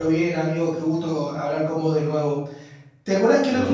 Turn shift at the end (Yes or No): No